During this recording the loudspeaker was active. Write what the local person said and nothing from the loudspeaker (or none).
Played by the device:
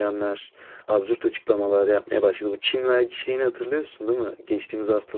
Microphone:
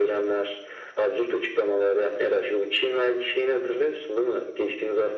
none